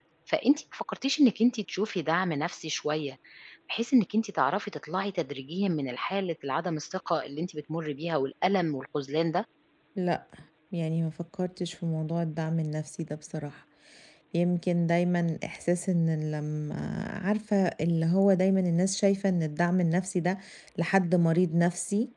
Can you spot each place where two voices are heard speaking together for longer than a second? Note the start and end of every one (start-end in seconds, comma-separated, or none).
none